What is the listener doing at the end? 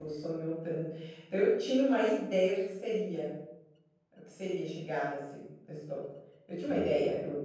listening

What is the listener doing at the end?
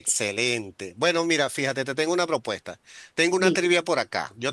listening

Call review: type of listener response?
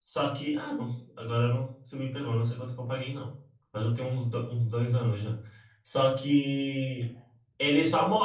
listening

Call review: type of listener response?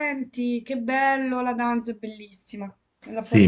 taking over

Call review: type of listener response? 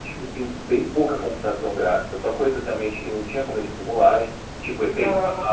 listening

